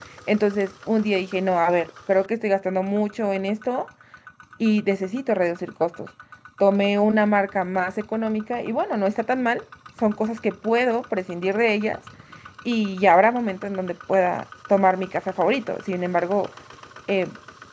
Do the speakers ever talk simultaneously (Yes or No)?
No